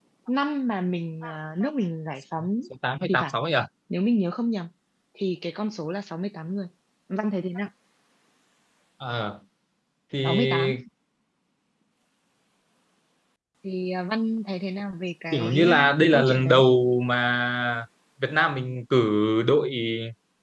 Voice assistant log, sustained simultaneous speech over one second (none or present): present